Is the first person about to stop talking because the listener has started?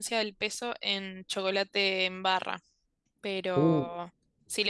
No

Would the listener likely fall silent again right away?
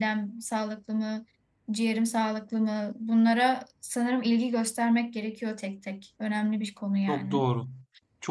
No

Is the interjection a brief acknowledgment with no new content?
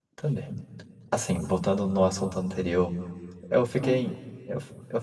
Yes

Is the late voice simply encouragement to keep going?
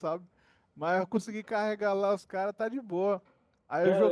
No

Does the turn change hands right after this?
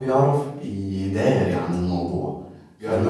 No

